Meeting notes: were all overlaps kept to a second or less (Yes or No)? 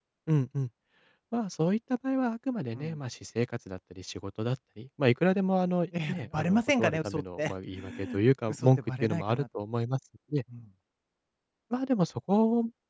No